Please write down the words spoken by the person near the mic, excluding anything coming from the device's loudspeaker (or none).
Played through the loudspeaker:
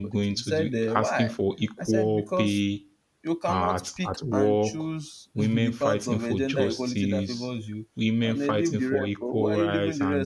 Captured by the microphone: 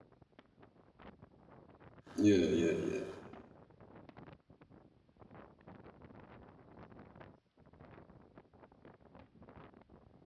Yeah, yeah, yeah.